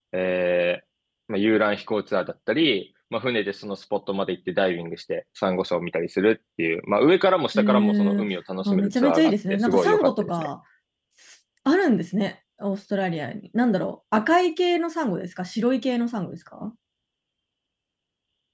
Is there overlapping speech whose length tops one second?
Yes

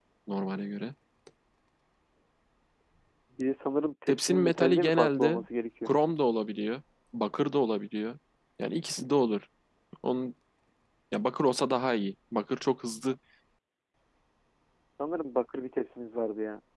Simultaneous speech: Yes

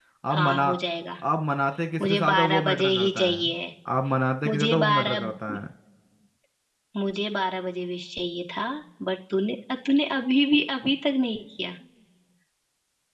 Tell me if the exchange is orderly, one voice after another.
No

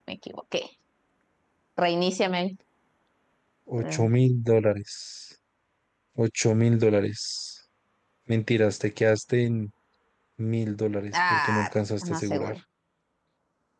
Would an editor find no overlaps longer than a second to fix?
No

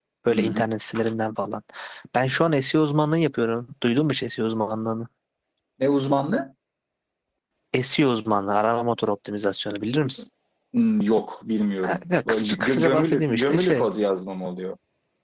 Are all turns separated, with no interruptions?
No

